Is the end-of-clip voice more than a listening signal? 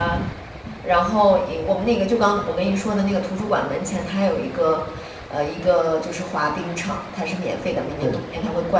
No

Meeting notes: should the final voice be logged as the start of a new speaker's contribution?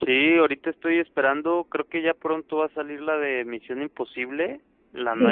No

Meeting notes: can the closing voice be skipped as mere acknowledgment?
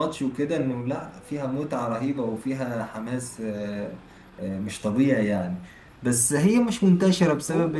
Yes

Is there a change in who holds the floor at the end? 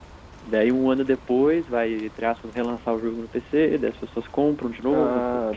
Yes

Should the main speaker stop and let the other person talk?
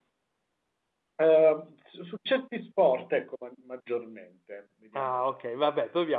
Yes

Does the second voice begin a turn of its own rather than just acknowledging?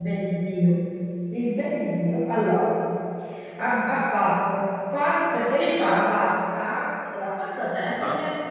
No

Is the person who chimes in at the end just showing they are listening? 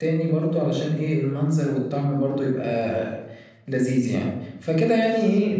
Yes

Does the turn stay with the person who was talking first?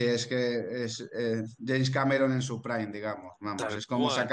Yes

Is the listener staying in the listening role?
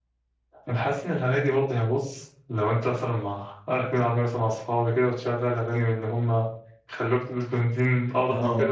Yes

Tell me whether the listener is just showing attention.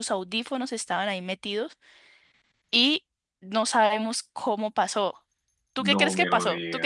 No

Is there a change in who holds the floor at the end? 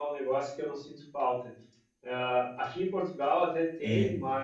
No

